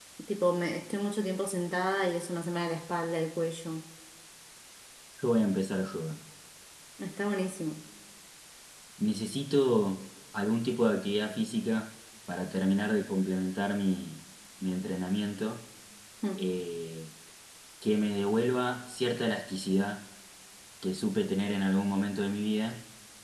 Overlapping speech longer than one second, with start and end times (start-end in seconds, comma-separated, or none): none